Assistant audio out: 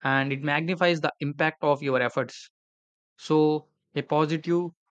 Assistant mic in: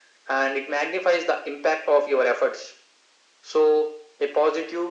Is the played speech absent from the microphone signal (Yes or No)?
No